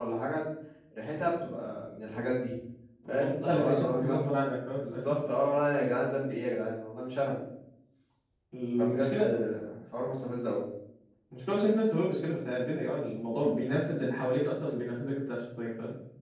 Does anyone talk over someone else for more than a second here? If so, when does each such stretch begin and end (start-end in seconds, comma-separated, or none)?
3.1-4.3